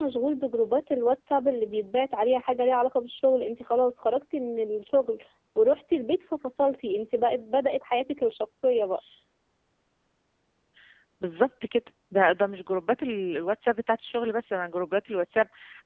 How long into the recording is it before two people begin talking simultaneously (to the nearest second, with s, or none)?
none